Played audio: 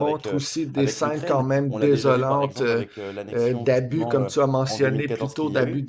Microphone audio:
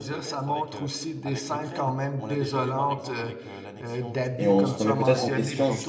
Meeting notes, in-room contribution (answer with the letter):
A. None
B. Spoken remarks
B